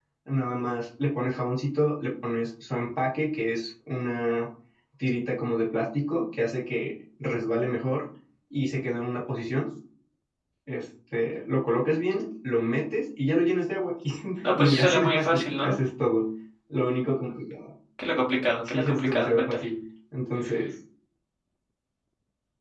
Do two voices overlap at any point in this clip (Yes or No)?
Yes